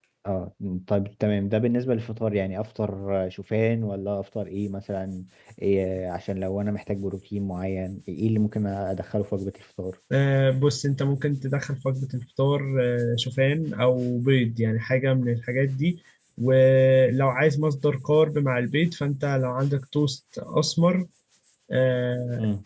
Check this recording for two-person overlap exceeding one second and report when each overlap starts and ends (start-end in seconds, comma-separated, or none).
none